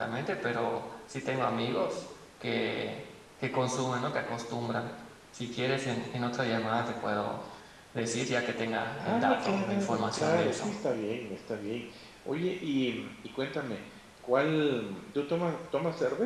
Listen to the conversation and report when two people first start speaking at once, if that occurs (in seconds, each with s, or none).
9.0 s